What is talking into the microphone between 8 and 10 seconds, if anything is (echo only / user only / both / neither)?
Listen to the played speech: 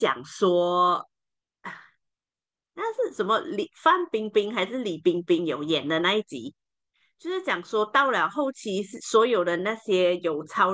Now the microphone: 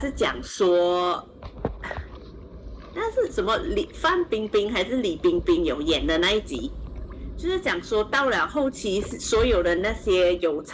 echo only